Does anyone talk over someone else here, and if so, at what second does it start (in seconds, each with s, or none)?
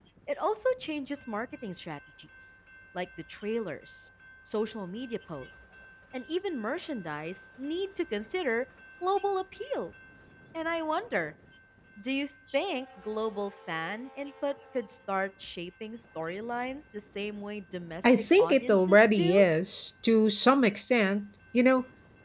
18.0 s